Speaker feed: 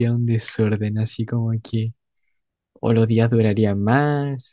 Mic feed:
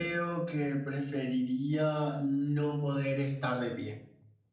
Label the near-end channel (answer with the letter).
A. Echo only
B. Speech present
B